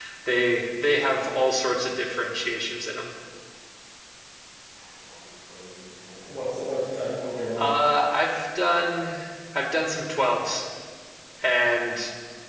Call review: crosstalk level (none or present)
none